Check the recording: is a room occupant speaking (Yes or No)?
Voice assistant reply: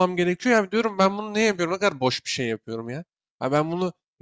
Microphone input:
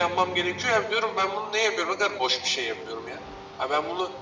No